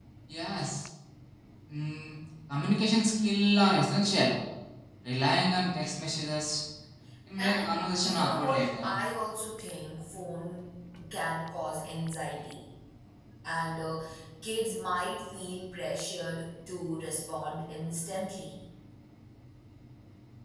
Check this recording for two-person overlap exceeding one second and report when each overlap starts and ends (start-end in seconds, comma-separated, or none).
7.4-9.0